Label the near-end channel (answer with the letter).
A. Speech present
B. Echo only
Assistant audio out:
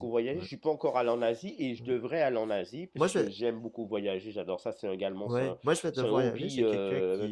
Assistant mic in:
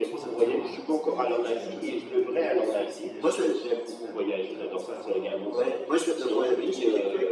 A